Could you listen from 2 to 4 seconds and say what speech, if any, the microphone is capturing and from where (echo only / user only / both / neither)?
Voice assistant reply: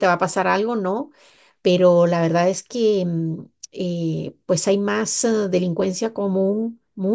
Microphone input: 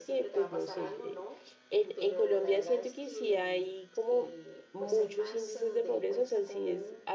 both